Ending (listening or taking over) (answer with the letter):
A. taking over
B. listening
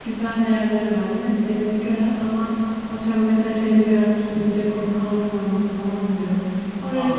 B